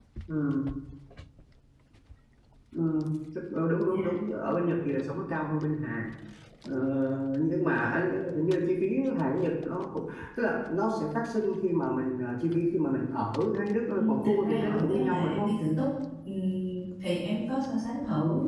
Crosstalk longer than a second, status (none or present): present